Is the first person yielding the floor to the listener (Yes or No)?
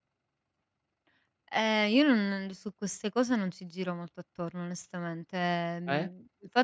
No